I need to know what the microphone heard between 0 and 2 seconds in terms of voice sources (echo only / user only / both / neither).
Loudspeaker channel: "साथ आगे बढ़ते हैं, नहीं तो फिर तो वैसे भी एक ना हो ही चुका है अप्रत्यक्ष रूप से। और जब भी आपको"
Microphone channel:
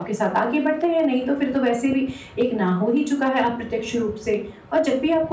echo only